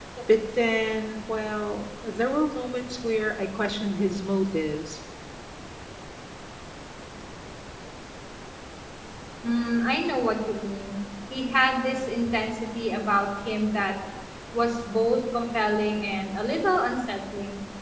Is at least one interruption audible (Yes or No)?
No